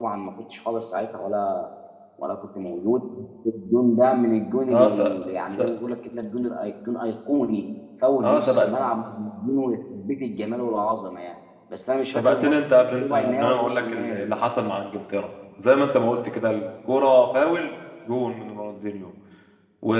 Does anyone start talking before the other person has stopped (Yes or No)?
Yes